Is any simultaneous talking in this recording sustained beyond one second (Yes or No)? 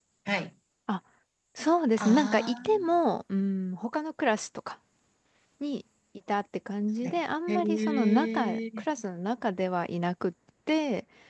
Yes